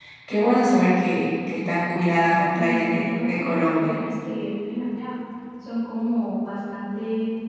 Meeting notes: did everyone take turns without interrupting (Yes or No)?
No